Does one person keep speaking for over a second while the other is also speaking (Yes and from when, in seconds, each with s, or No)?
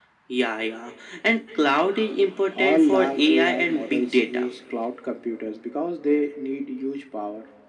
Yes, from 2.5 s